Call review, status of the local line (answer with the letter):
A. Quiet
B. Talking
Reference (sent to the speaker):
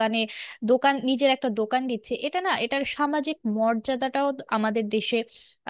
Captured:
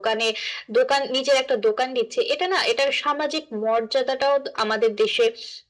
A